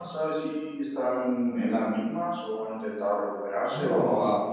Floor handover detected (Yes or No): Yes